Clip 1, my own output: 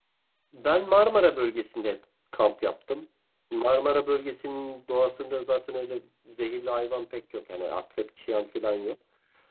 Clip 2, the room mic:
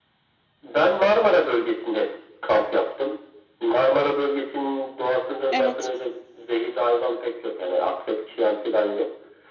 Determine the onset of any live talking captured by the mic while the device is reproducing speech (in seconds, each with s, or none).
5.5 s